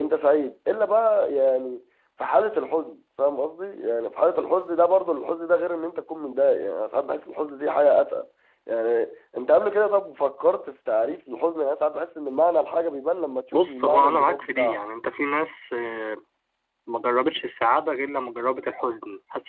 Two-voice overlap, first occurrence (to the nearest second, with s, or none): 14 s